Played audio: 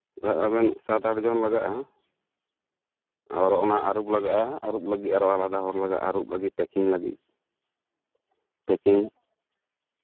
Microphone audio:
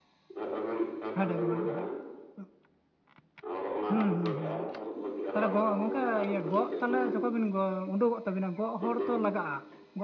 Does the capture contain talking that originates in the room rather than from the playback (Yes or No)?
Yes